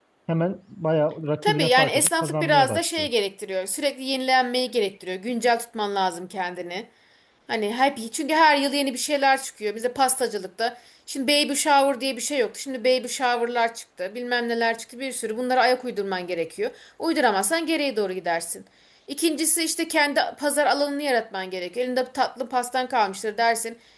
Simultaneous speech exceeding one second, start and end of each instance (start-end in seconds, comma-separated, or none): 1.4-3.1